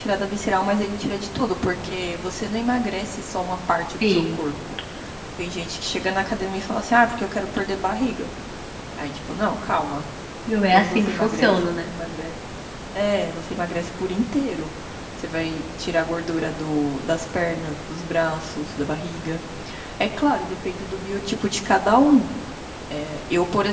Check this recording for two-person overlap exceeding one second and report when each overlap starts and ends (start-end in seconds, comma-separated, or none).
10.7-11.9